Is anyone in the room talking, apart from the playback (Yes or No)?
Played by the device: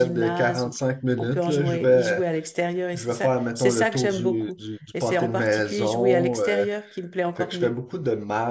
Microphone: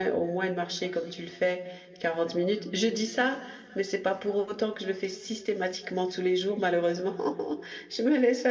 Yes